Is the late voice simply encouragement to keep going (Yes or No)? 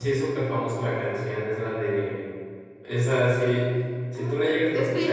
No